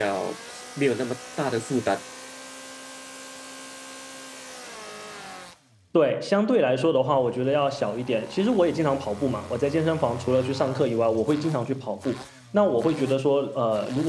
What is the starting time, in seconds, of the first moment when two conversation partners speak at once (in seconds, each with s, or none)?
none